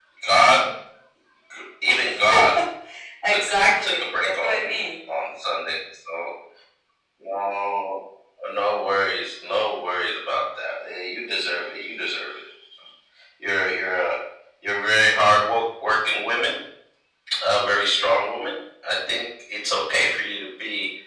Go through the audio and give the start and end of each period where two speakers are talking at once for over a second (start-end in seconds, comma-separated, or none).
3.3-4.8